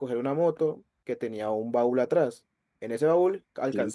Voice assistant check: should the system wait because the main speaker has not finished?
Yes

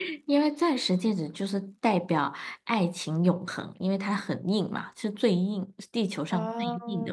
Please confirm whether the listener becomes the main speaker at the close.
Yes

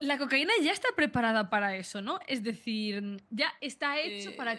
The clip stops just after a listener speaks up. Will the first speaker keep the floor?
Yes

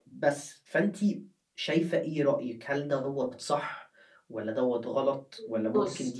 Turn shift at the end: No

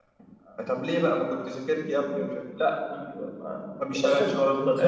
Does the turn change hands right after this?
Yes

